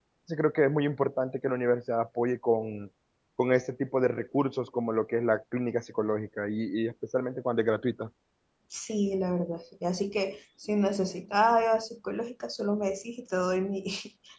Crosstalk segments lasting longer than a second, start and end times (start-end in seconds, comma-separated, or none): none